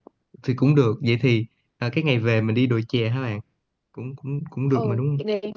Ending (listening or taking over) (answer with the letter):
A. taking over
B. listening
A